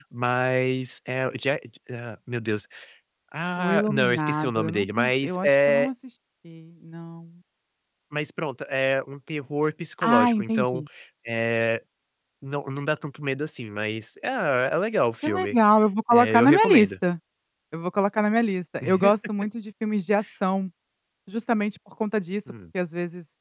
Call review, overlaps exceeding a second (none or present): present